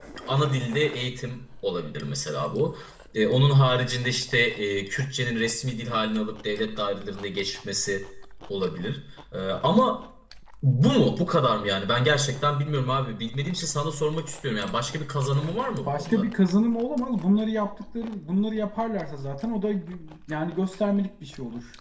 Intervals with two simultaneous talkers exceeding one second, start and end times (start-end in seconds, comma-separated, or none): none